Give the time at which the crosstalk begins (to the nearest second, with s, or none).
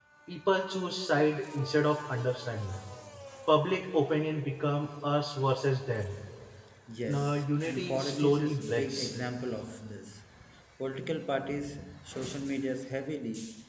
7 s